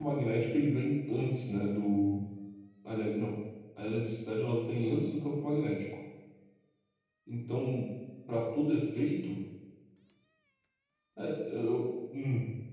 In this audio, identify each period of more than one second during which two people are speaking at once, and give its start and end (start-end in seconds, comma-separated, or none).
none